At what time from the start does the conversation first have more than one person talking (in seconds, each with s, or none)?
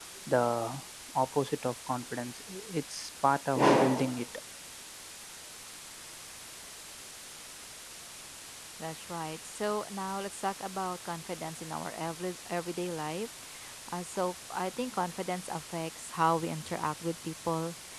none